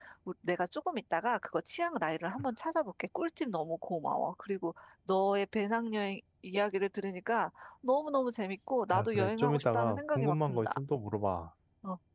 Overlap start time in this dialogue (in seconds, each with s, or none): 8.9 s